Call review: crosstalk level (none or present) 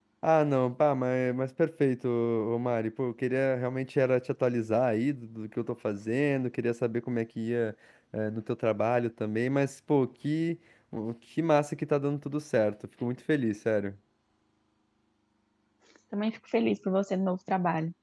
none